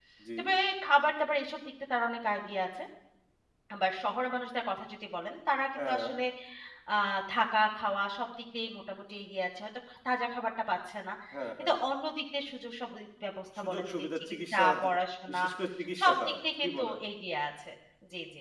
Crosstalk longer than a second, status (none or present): present